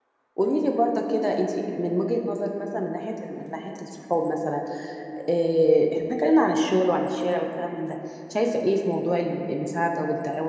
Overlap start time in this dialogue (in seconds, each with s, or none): none